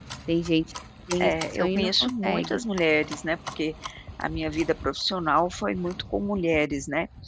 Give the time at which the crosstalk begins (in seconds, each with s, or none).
1.2 s